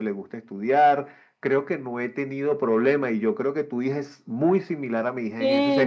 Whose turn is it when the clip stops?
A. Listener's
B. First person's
A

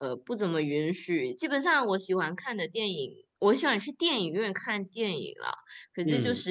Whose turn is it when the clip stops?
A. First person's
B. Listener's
A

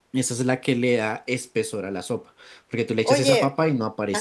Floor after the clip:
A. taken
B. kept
A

